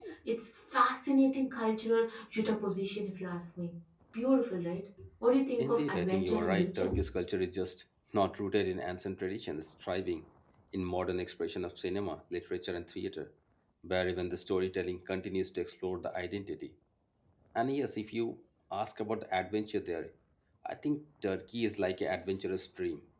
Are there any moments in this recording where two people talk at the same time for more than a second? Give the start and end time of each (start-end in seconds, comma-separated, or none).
5.6-6.9